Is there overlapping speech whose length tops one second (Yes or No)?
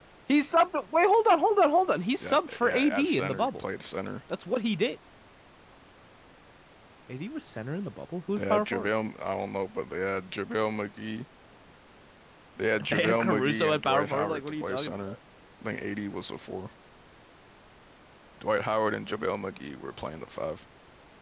Yes